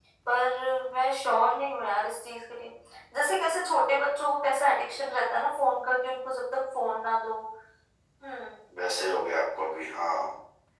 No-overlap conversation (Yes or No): Yes